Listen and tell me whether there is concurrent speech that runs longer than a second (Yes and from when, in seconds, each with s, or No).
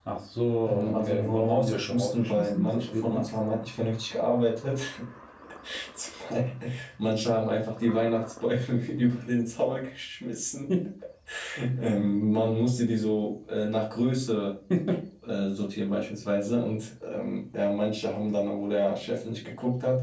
Yes, from 0.6 s